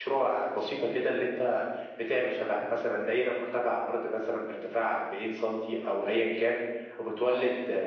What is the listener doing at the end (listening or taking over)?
listening